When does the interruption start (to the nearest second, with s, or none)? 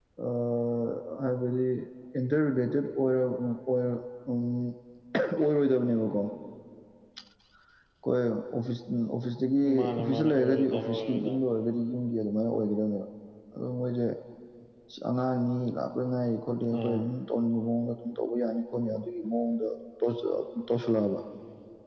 10 s